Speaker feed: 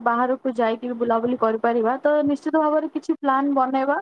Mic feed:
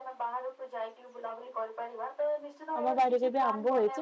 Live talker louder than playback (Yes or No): Yes